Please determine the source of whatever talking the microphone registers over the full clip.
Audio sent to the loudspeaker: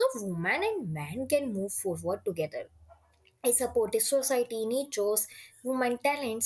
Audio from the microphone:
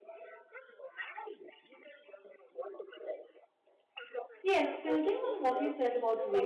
both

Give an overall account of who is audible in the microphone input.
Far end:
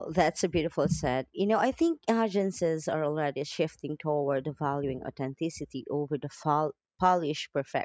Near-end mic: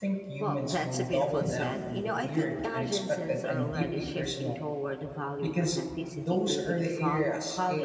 both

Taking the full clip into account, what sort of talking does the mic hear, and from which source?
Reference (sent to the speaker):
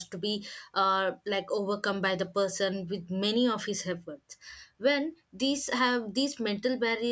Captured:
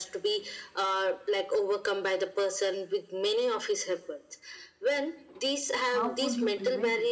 both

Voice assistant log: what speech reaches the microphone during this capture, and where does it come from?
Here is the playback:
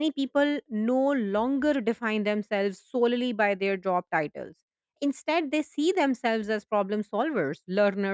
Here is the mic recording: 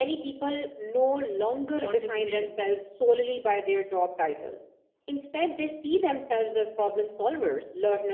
both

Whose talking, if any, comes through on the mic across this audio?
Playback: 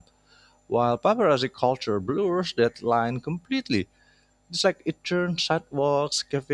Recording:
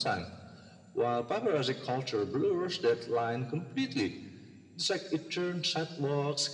echo only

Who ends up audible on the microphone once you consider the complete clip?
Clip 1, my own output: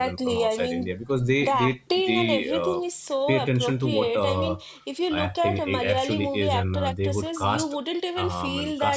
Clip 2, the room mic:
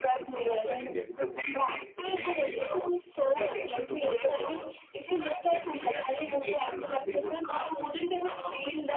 echo only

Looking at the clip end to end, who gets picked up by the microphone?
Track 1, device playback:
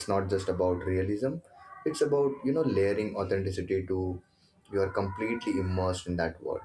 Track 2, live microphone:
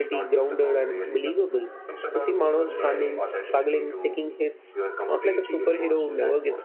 both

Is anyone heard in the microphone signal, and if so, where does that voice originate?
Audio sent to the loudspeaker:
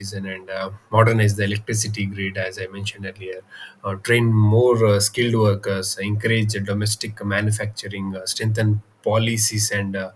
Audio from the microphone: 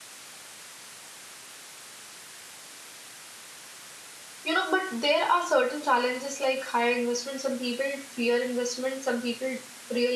user only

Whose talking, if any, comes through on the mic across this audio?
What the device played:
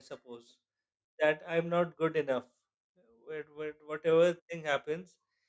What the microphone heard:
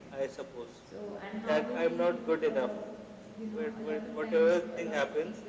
both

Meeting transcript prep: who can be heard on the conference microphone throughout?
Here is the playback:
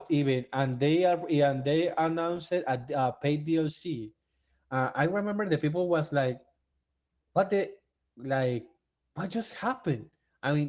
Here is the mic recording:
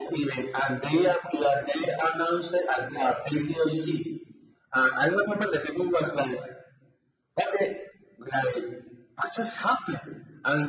echo only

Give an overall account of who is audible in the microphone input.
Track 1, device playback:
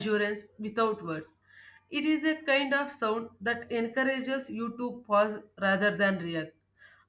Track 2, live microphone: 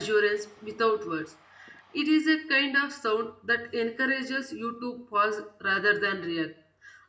echo only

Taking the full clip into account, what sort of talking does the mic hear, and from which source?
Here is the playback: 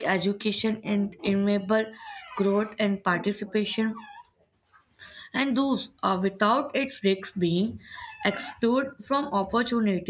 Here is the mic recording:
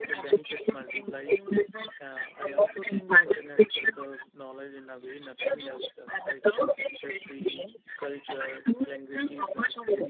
both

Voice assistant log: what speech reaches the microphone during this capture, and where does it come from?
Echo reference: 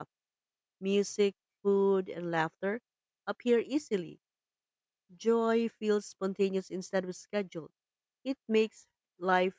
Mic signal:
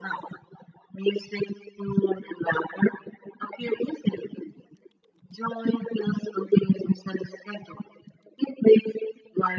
echo only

